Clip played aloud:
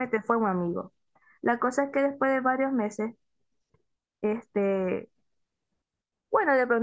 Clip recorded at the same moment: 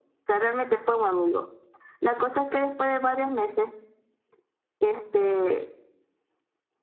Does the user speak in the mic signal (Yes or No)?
No